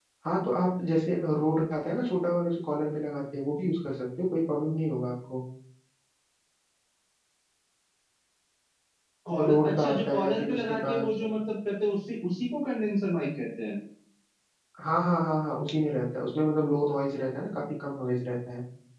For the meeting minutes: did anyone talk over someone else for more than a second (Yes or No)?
Yes